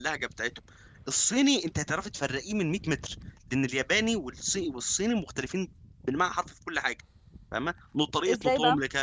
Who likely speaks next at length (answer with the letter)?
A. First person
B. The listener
A